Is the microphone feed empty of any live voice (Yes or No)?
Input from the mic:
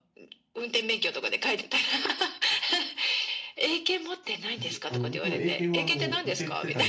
No